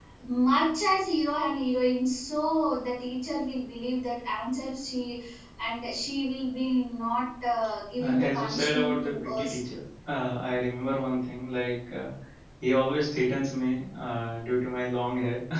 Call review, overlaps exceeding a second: present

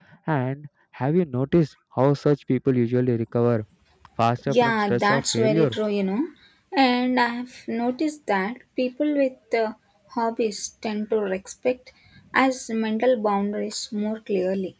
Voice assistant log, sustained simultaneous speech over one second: present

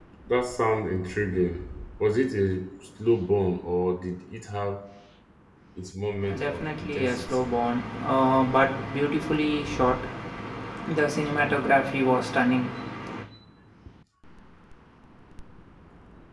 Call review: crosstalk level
present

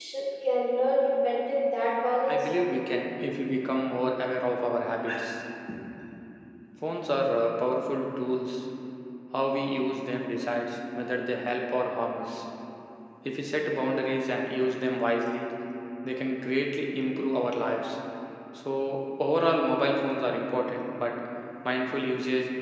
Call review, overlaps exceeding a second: none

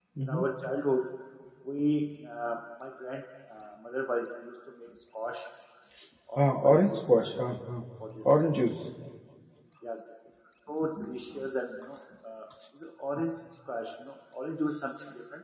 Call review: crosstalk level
present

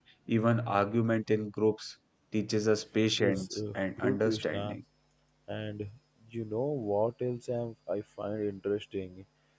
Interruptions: present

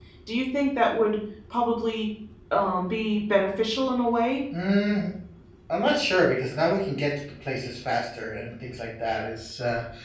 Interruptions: none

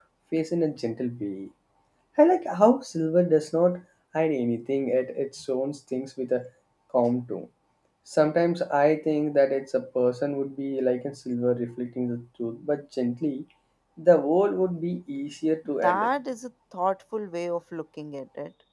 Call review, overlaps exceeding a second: none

